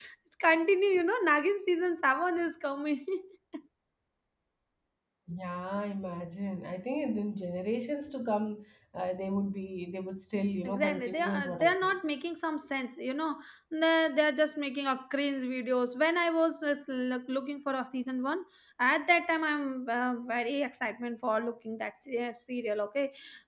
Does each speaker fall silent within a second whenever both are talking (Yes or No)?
No